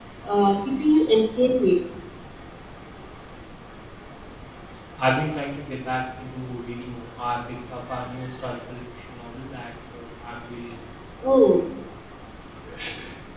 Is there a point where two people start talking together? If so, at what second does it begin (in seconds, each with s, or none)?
none